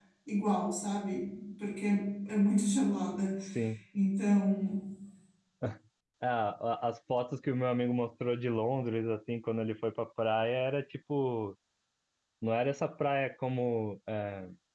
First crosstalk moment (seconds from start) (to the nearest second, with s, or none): none